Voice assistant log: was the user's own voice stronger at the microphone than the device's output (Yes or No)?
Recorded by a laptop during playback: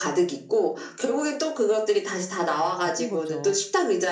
No